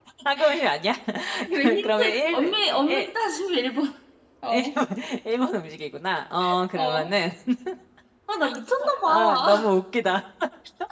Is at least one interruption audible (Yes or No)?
Yes